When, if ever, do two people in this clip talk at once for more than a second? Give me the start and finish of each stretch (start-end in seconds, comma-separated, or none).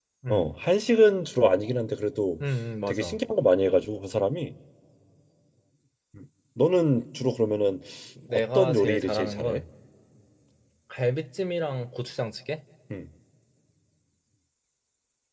8.3-9.6